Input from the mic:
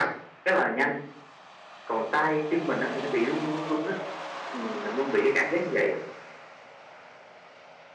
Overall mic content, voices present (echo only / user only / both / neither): echo only